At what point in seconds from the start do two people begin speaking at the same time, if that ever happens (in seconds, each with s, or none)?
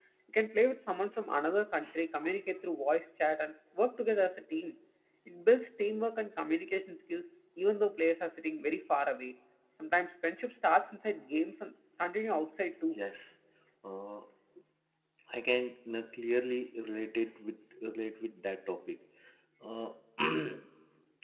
none